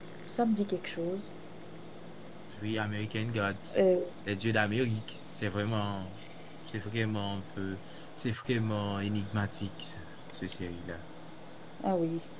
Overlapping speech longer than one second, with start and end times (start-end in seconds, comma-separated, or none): none